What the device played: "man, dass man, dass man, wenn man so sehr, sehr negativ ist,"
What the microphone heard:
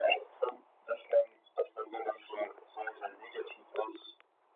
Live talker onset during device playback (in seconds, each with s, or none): none